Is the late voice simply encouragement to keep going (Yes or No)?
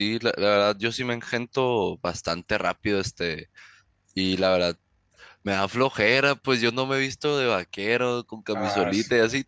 Yes